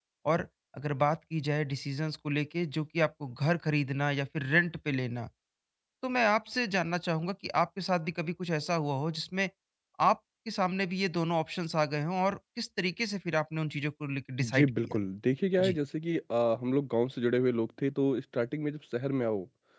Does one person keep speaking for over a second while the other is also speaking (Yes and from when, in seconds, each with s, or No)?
No